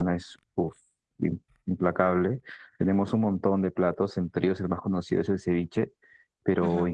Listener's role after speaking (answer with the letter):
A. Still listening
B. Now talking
A